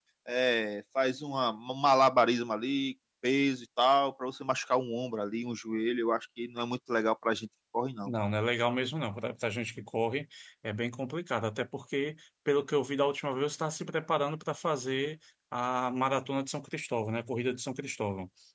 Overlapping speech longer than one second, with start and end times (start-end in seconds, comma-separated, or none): none